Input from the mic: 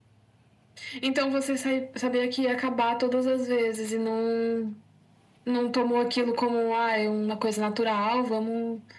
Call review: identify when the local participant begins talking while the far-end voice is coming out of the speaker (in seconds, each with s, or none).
none